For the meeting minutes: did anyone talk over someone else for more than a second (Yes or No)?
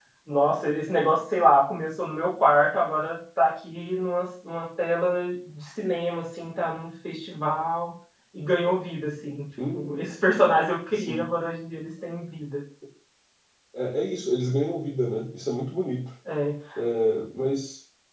No